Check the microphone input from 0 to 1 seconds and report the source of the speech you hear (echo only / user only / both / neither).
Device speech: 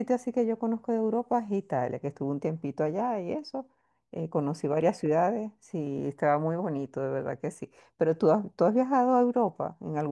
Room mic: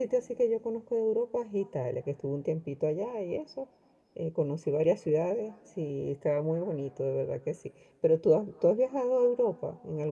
echo only